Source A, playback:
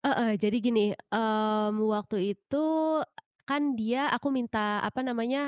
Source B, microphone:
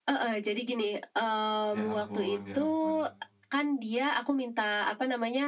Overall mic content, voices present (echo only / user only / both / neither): both